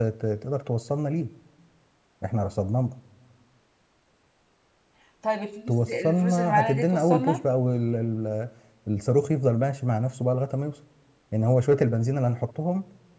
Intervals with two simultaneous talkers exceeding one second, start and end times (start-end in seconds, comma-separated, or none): 5.7-7.4